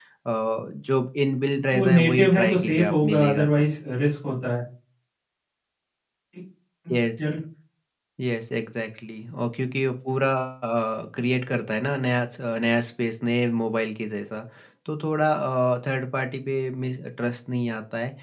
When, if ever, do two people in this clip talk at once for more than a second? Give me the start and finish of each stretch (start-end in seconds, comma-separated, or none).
1.7-3.7